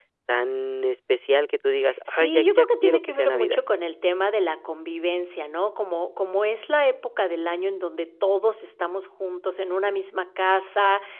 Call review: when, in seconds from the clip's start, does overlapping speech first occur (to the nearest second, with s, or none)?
2 s